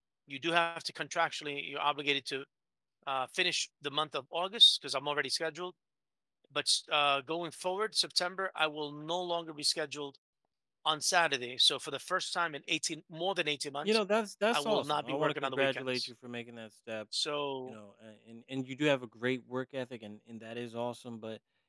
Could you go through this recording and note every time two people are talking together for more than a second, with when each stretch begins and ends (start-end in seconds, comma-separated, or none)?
14.5-16.1